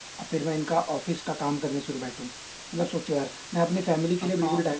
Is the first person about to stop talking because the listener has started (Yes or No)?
Yes